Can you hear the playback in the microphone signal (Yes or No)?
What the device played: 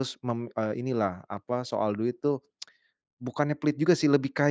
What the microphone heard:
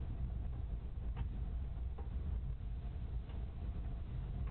No